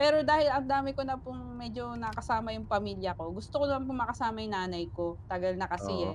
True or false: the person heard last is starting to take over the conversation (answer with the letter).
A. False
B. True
A